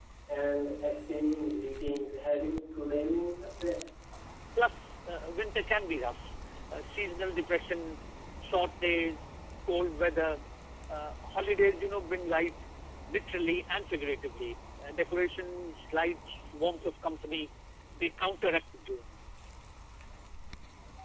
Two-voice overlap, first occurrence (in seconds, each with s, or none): none